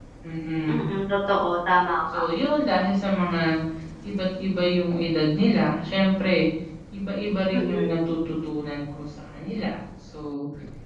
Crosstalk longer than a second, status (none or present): none